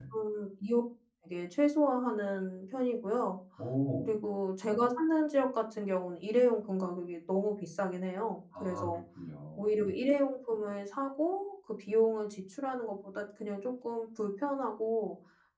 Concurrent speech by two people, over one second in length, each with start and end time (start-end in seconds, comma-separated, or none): none